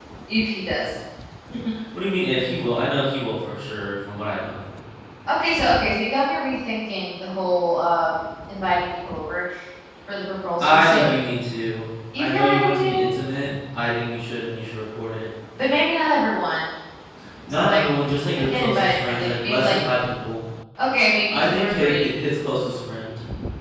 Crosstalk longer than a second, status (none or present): present